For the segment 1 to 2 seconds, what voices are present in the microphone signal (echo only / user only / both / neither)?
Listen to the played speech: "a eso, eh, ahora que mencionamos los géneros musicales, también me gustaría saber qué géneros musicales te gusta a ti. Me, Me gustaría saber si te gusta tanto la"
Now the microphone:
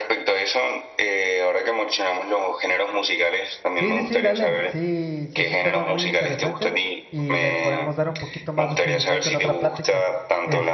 echo only